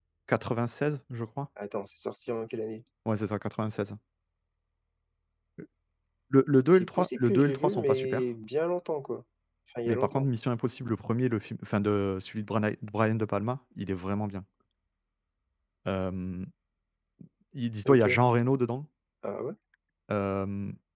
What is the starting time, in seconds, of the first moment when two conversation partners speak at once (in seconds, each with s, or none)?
6.7 s